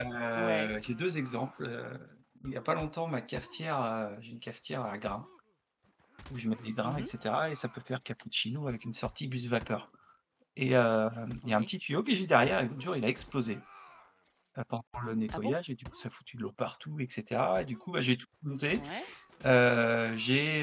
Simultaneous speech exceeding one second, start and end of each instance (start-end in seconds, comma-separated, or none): none